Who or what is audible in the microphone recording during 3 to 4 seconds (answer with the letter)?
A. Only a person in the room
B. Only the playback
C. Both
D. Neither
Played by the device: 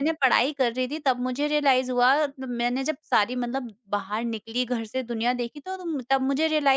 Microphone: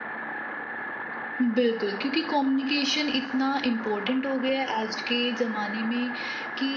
A